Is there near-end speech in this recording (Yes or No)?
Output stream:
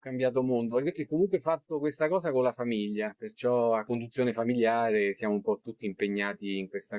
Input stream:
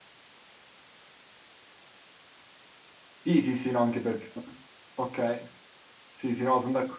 Yes